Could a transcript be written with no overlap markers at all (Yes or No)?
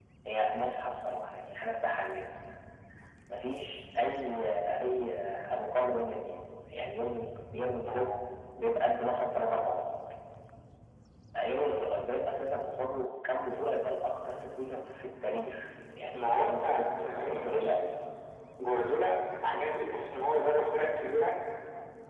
No